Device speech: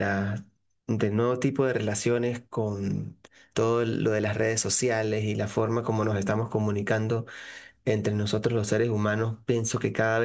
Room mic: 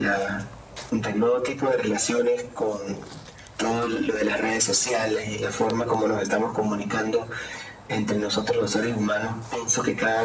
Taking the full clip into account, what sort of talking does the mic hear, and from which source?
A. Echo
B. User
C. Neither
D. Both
A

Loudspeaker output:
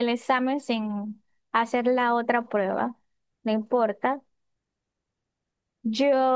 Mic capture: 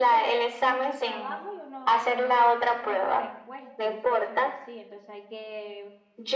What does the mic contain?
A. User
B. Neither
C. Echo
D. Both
D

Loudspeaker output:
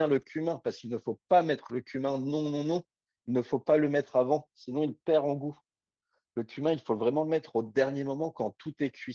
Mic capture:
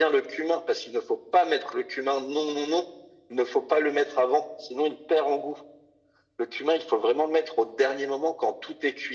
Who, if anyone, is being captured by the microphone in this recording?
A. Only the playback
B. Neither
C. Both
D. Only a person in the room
A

